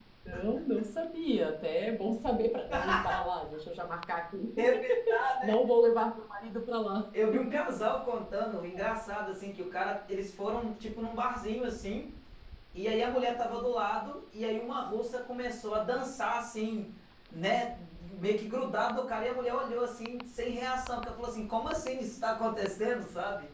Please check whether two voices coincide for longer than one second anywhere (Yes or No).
No